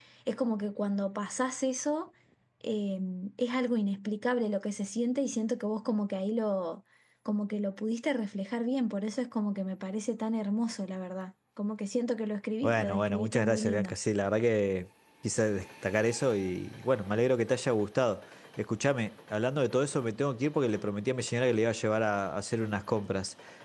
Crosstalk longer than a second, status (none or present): present